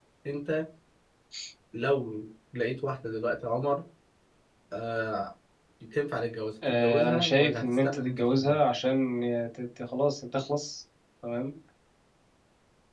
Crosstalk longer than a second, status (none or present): present